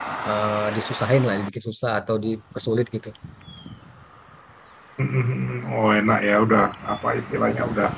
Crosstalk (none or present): none